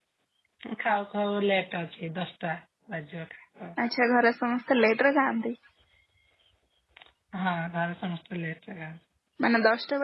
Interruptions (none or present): none